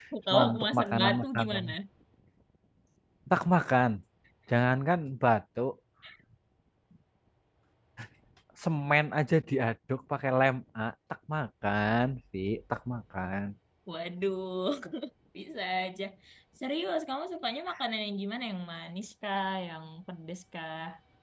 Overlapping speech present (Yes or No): Yes